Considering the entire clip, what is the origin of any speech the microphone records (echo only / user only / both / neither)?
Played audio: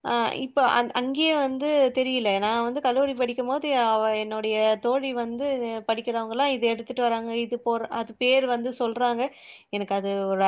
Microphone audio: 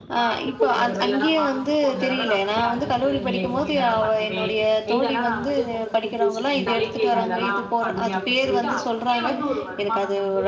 both